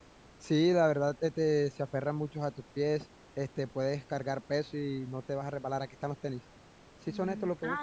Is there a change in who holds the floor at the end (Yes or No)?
Yes